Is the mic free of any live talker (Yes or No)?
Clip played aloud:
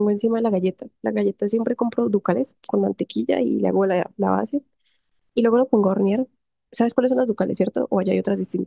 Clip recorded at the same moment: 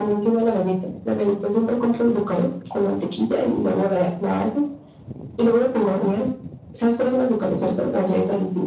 Yes